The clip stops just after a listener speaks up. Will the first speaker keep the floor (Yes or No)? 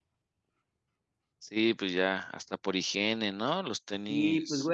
No